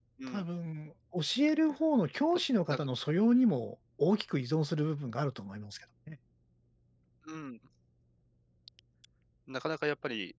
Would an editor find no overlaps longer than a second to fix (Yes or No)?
Yes